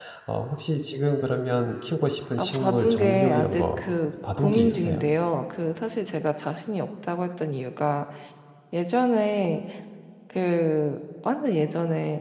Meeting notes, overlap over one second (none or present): present